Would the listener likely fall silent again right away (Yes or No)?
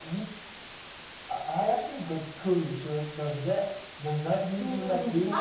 No